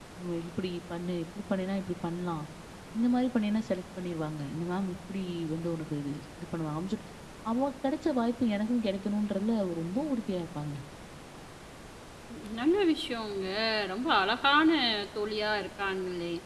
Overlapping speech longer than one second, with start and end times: none

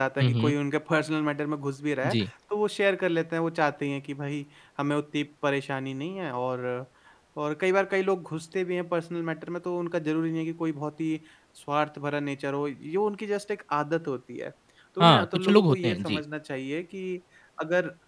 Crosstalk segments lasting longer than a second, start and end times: 15.0-16.2

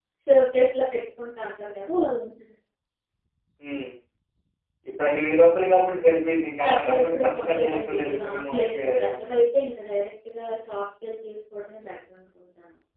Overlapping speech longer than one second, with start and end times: 6.6-9.3

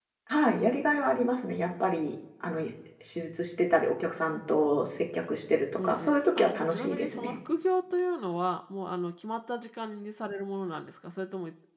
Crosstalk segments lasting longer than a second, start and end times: 5.8-7.4

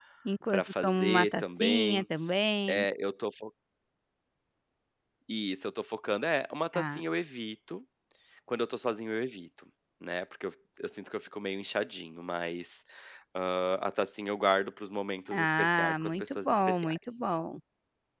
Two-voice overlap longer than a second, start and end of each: 0.5-2.0, 15.3-17.0

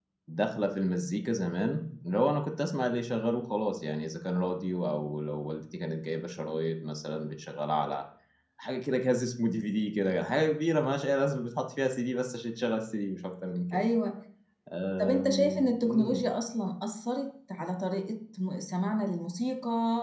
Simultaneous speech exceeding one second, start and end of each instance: 15.0-16.2

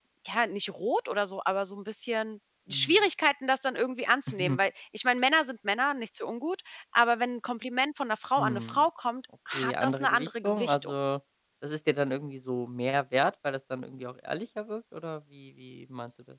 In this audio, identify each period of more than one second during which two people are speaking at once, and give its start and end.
9.5-10.9

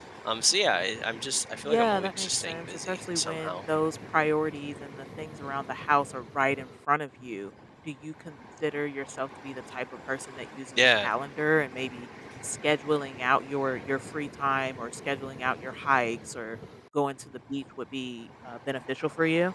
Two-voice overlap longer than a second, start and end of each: 1.6-3.6

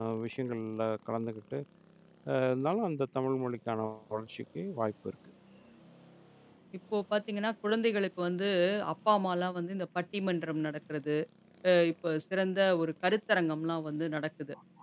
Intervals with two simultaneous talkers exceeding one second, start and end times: none

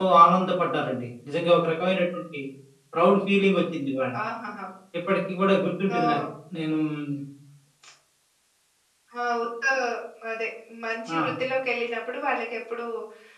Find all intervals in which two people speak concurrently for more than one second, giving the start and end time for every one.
none

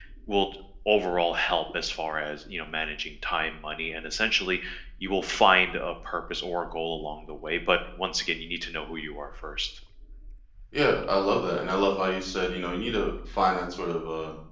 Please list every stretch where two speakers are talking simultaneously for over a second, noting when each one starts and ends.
none

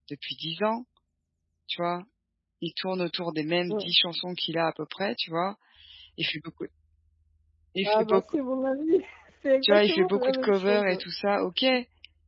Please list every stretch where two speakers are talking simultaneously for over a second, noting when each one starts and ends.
9.6-11.0

